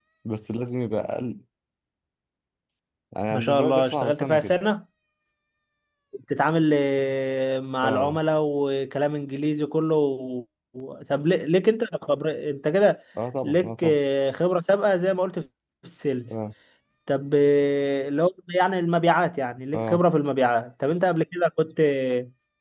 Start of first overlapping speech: 3 s

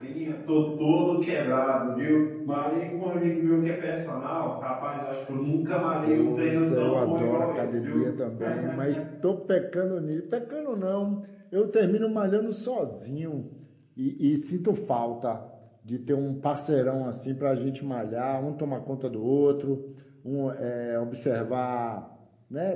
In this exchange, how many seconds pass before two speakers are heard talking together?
6 s

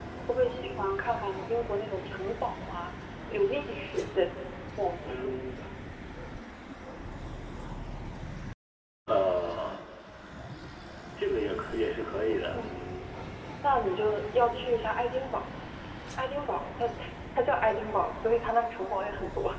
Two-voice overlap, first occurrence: none

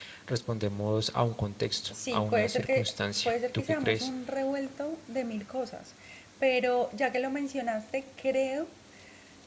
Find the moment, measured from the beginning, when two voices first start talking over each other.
2 s

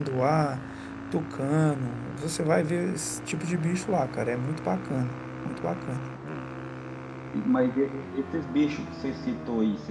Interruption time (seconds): none

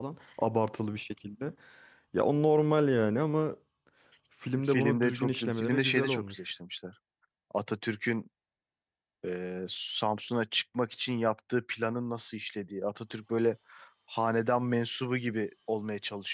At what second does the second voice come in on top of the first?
5 s

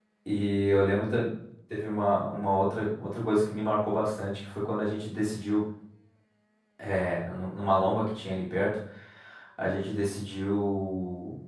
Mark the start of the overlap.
none

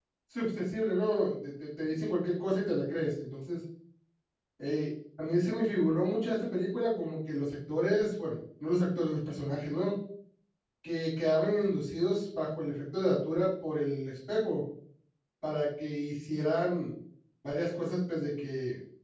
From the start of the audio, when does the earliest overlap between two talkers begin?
none

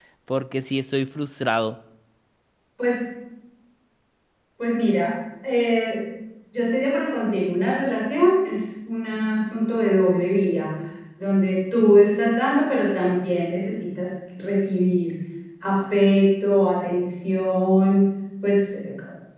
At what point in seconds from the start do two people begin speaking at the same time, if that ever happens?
none

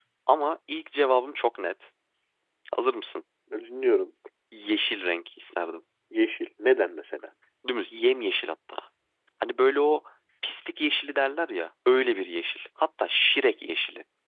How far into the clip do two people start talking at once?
none

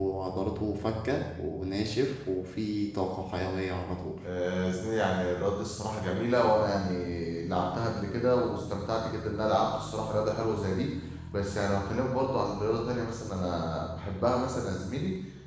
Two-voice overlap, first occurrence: none

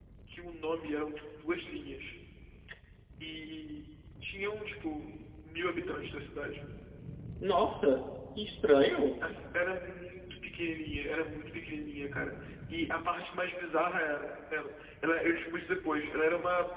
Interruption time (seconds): none

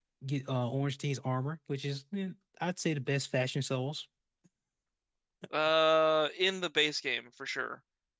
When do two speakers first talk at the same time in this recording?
none

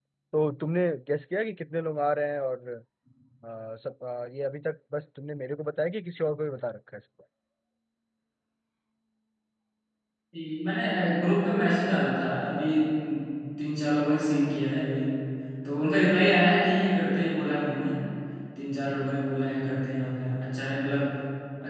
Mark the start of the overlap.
none

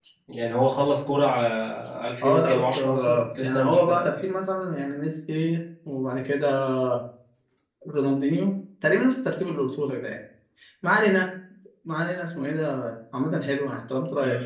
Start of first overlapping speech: 2 s

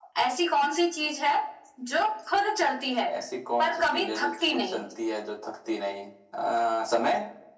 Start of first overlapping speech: 4 s

